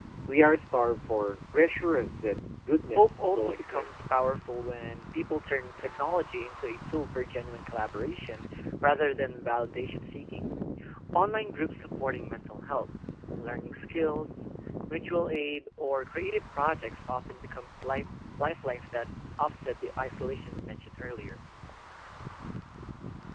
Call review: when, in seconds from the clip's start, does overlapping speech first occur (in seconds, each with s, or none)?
2.9 s